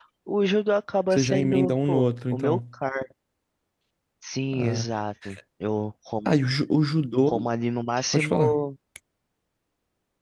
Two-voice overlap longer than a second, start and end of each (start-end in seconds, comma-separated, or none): 1.1-2.6